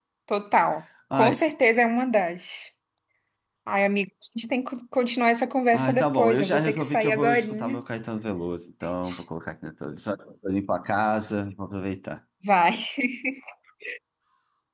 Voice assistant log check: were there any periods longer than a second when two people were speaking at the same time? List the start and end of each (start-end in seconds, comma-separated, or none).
5.7-7.8